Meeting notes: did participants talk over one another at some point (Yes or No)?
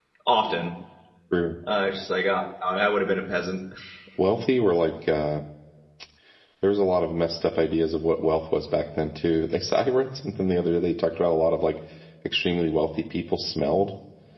No